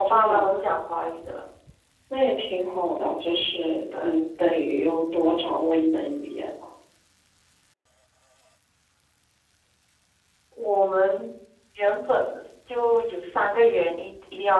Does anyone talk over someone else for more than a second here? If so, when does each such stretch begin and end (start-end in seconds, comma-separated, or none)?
none